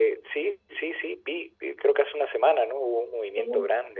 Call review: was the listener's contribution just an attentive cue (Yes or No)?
Yes